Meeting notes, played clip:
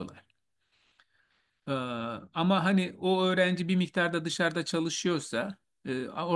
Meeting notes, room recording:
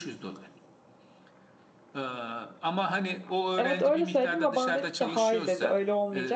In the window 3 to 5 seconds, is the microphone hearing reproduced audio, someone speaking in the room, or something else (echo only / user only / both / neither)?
both